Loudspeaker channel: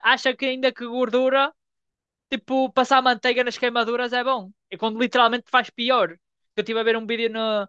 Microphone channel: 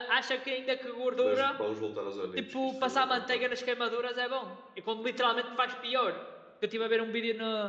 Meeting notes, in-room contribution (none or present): present